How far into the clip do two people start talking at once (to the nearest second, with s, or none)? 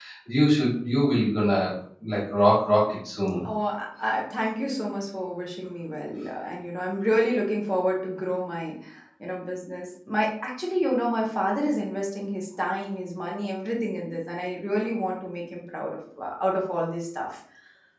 none